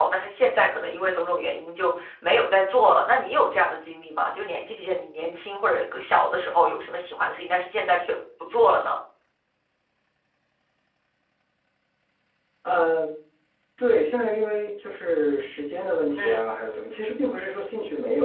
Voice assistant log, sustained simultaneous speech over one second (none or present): none